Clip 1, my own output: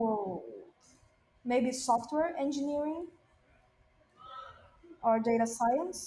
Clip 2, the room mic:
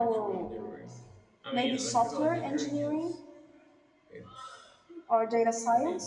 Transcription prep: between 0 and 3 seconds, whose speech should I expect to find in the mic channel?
both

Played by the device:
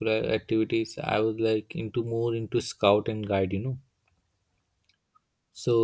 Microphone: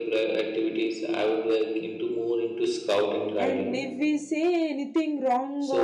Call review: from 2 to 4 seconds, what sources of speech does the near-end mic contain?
both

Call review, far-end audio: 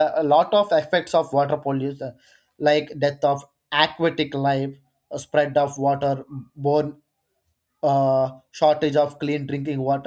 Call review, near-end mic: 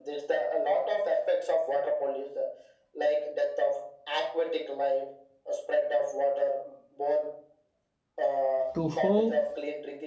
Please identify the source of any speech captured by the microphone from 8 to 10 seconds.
both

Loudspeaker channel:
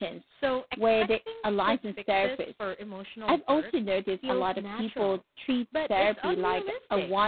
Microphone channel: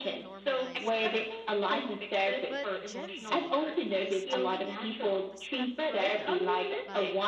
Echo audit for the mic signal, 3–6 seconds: both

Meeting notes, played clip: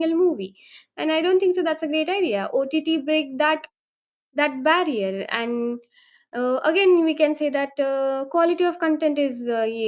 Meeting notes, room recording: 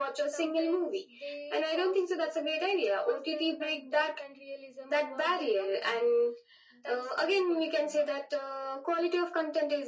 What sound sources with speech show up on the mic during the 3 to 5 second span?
both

